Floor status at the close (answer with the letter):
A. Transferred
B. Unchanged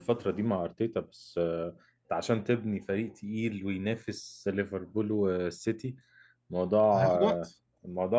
B